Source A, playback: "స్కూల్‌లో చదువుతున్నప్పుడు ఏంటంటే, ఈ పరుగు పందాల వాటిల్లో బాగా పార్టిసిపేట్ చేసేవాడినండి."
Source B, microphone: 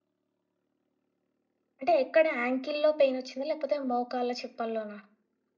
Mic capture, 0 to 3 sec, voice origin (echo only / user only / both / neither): user only